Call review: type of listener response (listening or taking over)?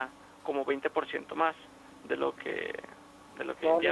taking over